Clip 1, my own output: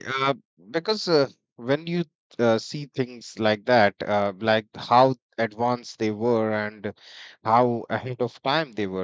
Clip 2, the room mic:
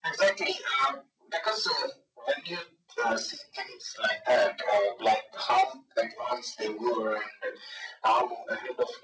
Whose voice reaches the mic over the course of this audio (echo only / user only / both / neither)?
echo only